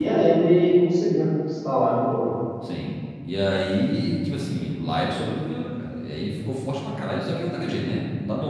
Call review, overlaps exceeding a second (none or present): none